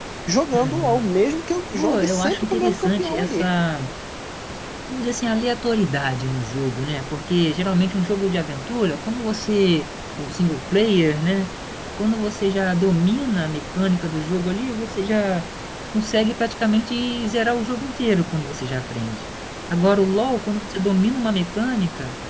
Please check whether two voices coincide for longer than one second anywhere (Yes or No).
Yes